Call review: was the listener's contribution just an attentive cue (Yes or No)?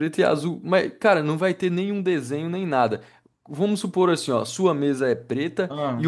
Yes